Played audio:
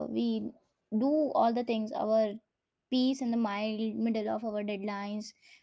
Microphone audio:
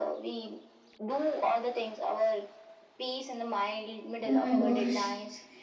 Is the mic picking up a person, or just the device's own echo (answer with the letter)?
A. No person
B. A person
B